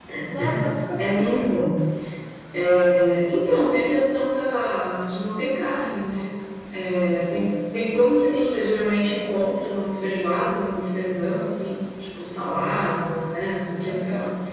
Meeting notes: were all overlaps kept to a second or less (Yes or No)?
Yes